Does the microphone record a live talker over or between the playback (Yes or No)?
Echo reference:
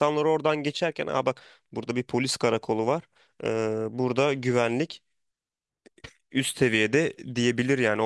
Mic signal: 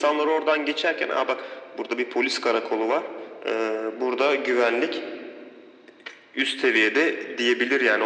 No